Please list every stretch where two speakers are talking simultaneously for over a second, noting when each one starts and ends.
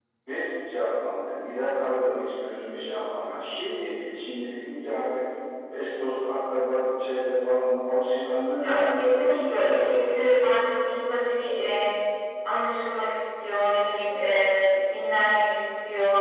8.6-10.2

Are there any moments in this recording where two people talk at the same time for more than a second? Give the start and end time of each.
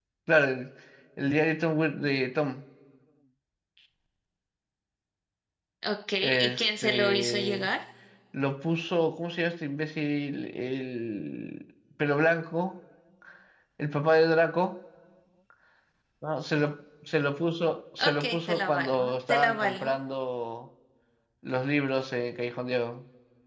6.2-7.7, 18.0-19.9

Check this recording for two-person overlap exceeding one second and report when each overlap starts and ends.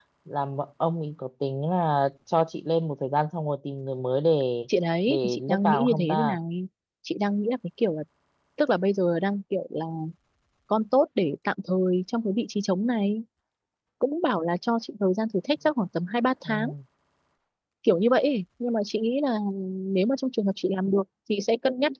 5.1-6.4

